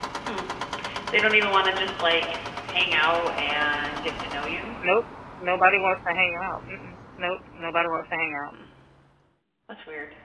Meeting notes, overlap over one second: none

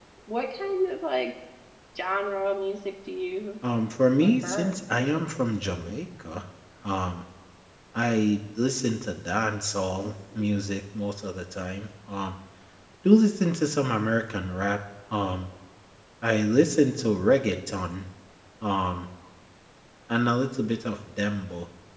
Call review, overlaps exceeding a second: present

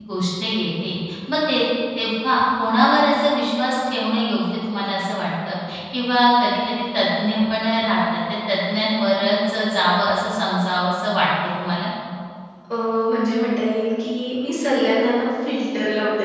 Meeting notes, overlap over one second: none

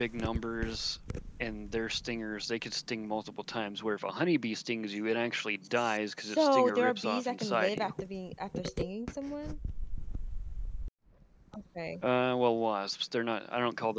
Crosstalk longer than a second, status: present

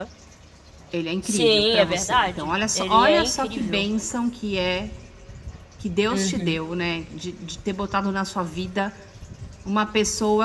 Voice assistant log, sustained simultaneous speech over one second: present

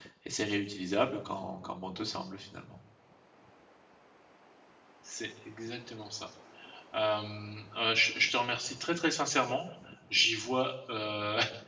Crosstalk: none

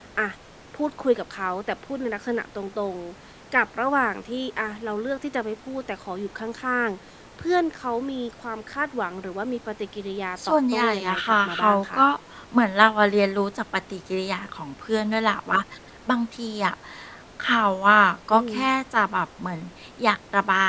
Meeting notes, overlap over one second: present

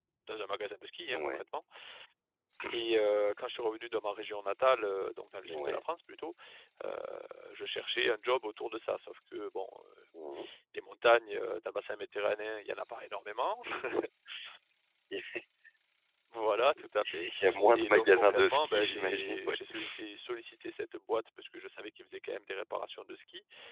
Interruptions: present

